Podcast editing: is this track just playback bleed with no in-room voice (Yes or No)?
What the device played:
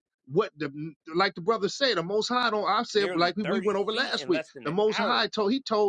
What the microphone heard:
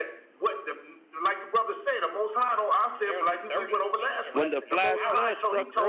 No